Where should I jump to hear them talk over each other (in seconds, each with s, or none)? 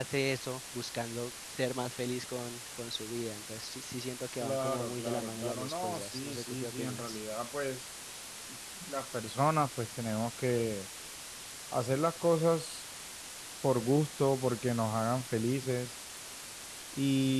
4.4 s